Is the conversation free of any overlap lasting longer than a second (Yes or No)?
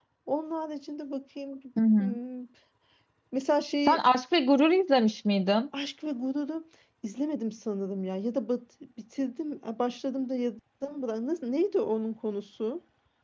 Yes